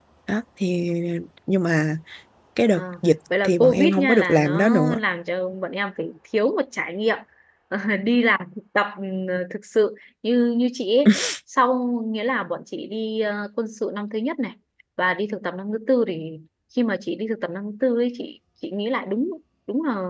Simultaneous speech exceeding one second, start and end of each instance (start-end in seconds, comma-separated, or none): 3.4-5.0